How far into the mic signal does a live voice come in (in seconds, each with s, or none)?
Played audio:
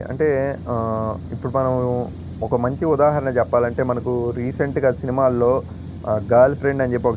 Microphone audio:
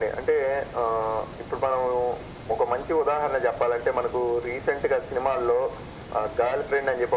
none